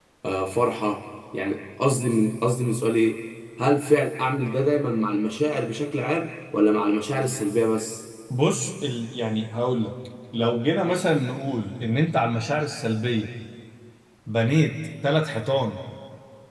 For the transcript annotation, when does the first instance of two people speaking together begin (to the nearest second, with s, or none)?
none